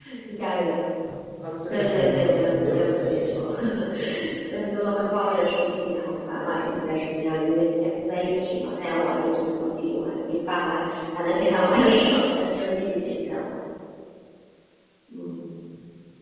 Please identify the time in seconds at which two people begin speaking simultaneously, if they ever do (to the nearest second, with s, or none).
2 s